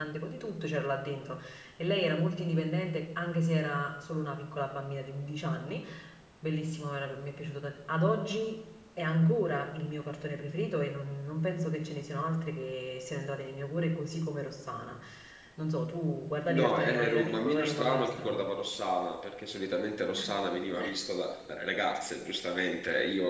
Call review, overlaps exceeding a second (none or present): present